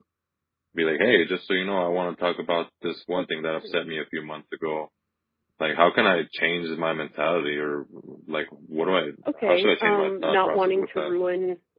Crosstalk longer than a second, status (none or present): present